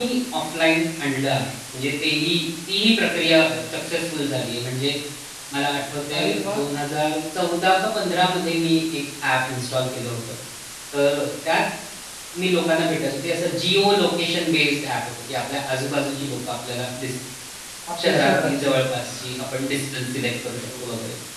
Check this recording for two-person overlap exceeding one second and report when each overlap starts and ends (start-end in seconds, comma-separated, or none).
18.0-19.4